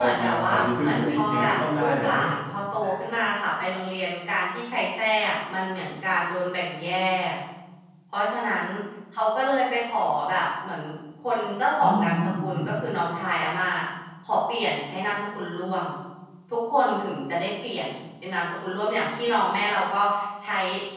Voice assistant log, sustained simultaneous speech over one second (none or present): present